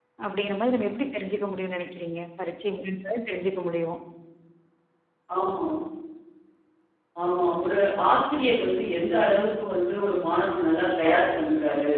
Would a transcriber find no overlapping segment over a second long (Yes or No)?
Yes